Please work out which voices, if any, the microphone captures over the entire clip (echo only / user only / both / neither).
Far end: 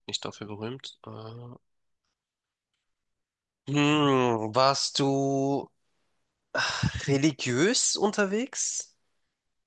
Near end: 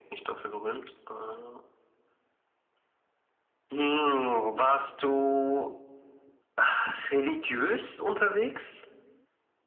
echo only